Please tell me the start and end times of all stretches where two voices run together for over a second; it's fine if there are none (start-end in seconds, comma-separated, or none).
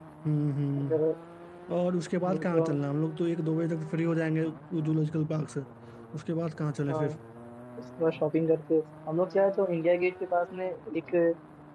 none